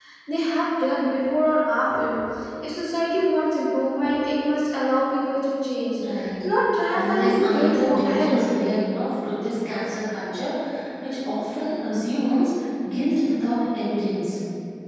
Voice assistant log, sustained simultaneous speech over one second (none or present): present